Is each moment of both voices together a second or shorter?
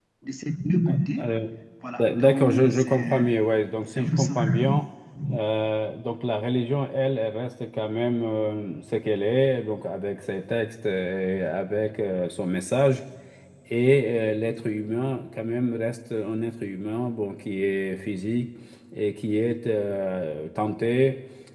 No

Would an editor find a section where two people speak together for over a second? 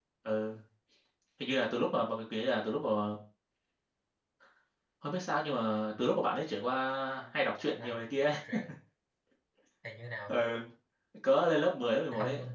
No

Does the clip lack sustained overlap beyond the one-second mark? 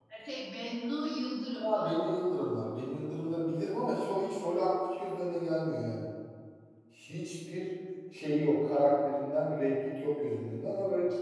Yes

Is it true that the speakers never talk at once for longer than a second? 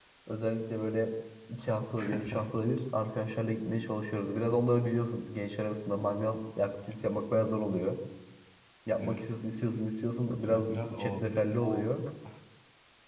No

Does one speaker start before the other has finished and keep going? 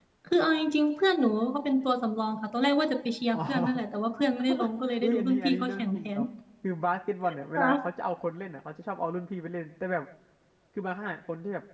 Yes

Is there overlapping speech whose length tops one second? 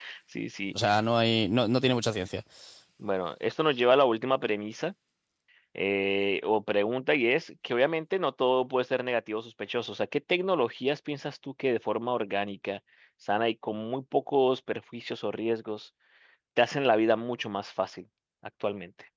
No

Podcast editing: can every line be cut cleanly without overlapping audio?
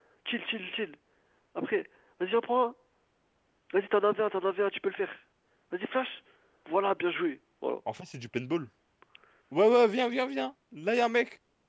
Yes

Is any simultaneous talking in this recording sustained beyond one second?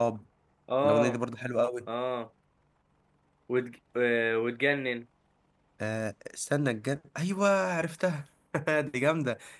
No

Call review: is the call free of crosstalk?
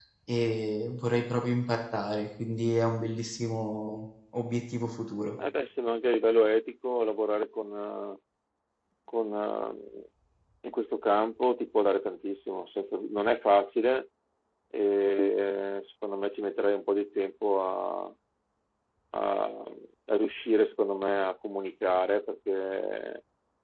Yes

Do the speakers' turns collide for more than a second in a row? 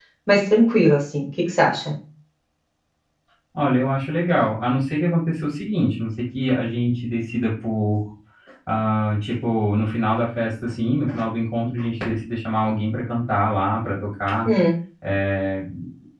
No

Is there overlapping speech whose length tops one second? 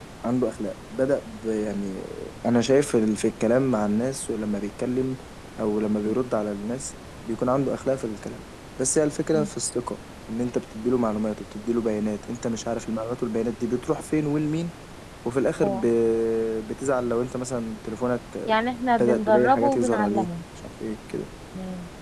Yes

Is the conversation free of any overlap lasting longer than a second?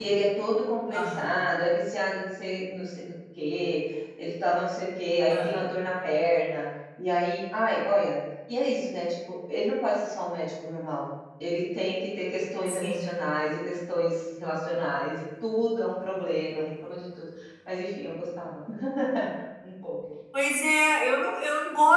Yes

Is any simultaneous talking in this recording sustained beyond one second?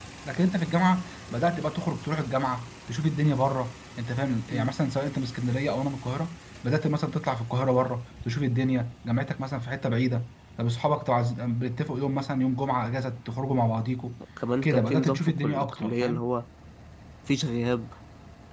Yes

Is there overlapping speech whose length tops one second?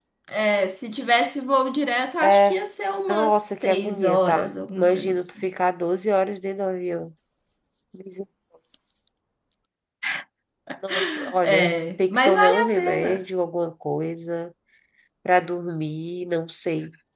Yes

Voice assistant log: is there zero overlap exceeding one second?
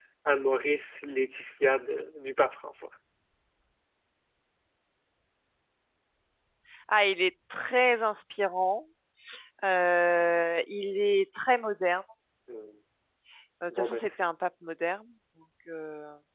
Yes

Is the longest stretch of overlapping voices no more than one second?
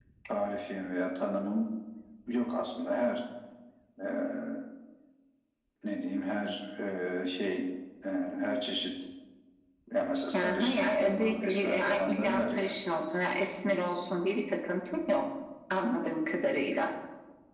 No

